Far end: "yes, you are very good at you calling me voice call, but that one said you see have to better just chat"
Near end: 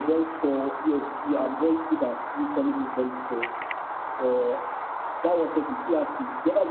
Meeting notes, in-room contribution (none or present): none